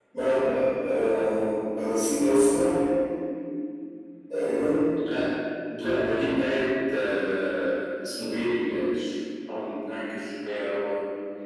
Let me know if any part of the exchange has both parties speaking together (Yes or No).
No